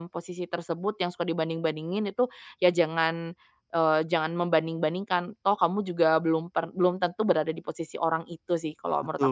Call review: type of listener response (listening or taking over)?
taking over